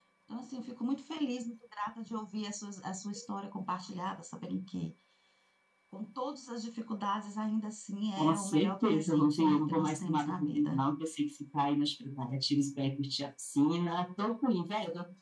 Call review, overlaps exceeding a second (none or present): present